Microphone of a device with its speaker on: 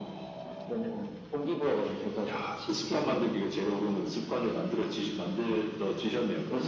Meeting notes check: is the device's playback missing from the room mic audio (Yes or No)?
No